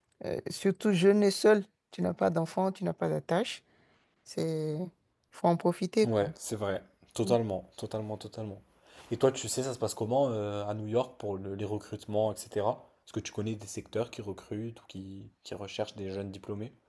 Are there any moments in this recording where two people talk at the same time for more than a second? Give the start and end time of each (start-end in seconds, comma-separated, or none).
none